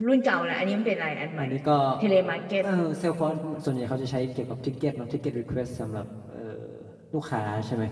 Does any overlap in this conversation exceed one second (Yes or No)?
No